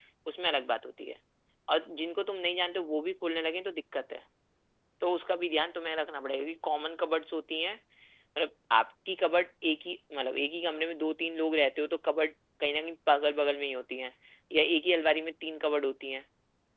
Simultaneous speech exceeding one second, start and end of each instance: none

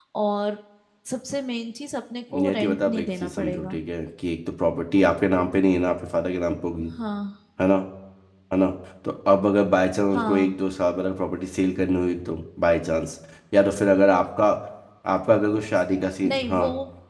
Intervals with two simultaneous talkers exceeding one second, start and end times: 2.3-3.8

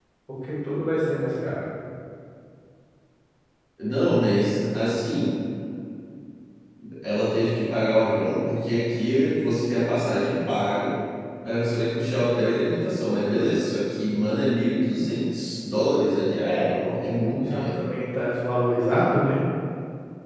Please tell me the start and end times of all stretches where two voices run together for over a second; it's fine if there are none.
16.4-17.7

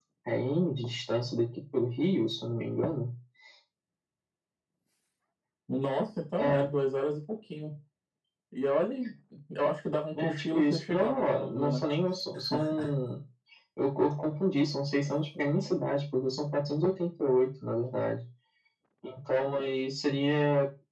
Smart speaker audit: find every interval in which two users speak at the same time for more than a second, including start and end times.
10.2-11.8

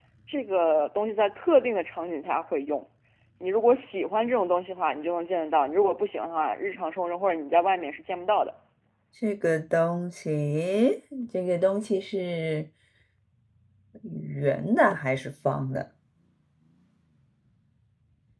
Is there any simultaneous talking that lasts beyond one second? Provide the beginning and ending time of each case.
none

